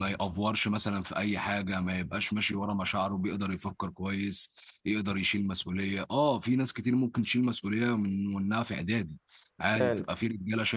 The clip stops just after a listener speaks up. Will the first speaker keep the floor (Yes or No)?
Yes